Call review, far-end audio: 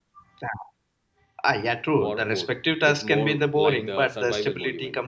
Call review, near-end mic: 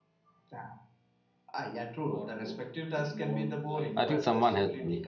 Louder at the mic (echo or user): user